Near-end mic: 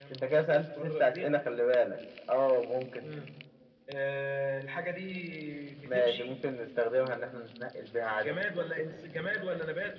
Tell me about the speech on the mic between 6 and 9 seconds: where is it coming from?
echo only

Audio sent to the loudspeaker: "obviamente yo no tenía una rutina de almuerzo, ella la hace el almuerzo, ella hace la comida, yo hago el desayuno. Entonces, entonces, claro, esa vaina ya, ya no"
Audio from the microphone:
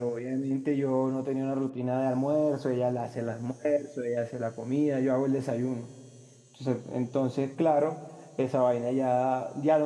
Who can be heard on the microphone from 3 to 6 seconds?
echo only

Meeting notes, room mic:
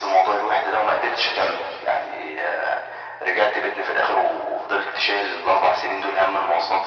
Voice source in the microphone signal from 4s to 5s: echo only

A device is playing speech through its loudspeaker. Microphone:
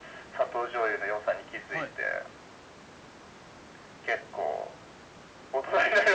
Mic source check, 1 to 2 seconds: both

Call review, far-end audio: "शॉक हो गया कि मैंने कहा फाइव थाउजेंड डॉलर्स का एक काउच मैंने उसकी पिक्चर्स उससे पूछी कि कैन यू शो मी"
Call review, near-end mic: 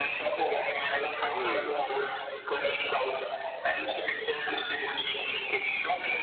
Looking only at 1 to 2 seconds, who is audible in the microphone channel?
both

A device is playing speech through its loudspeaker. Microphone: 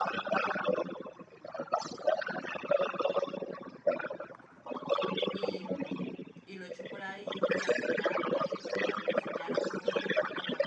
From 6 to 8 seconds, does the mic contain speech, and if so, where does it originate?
both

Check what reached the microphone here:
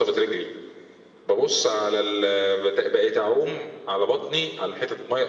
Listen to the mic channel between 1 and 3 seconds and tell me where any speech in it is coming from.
echo only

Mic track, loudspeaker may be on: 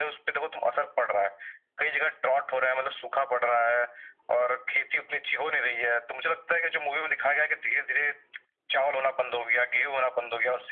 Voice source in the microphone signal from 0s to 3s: echo only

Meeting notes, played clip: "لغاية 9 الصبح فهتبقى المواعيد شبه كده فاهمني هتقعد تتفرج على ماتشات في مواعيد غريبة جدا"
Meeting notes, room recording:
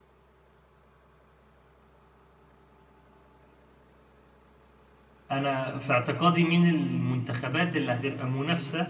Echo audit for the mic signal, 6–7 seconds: user only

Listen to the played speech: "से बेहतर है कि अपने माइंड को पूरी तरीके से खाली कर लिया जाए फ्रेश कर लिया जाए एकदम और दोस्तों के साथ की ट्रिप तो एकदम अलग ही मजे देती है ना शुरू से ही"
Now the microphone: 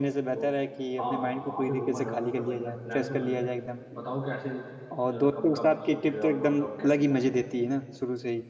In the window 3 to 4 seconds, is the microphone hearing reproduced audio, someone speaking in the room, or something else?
both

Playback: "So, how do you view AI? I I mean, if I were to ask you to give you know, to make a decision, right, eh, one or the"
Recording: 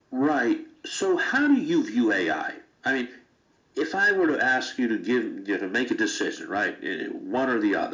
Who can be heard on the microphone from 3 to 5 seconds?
echo only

